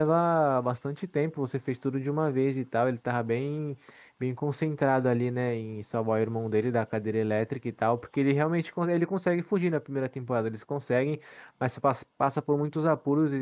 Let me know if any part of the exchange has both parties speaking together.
No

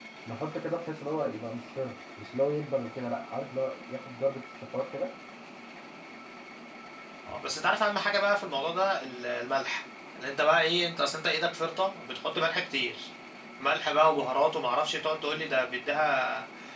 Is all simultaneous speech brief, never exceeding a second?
Yes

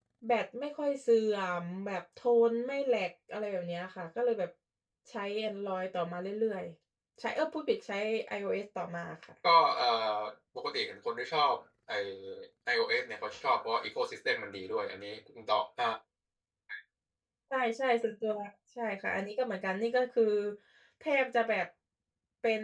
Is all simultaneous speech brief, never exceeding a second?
Yes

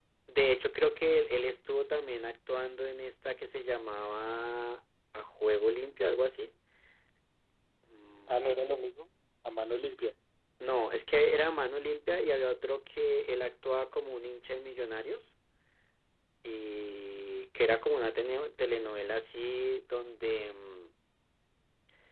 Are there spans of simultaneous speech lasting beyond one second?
No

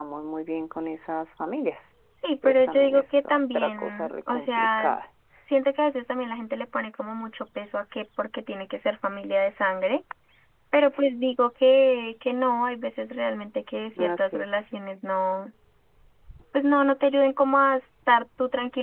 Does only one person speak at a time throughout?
No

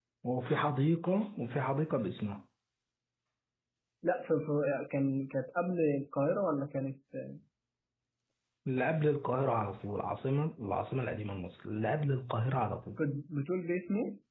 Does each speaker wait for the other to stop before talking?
Yes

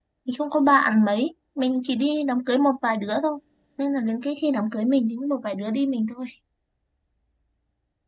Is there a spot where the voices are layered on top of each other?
No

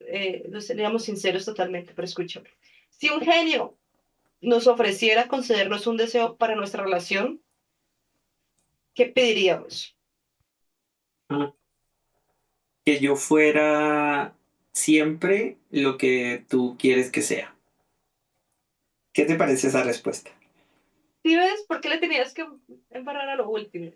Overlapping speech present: No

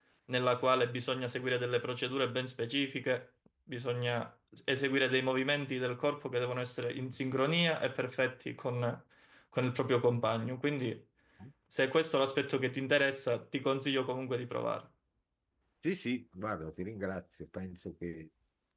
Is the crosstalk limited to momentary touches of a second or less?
Yes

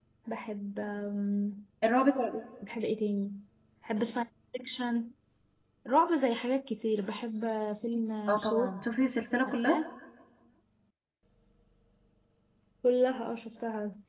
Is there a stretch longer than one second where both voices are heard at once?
No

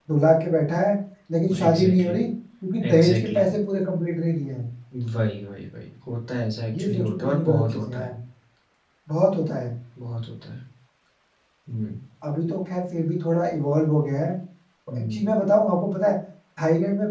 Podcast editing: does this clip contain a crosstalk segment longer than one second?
Yes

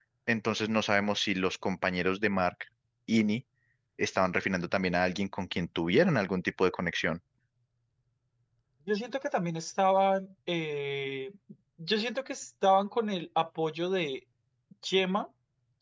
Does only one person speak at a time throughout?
Yes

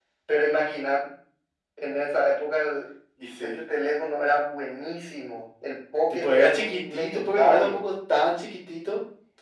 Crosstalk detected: Yes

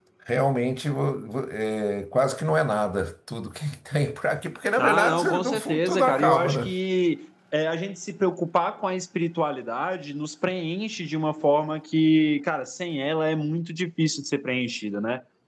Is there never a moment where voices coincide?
No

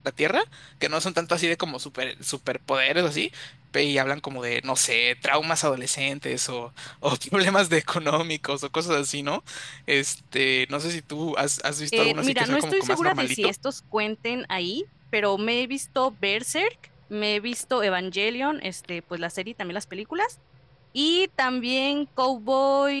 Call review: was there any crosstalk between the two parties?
Yes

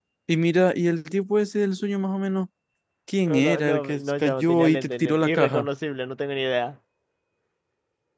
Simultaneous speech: Yes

